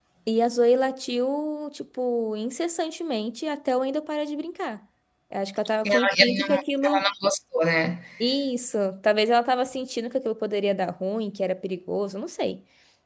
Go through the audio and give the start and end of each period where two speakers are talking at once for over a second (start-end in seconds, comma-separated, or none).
5.8-7.1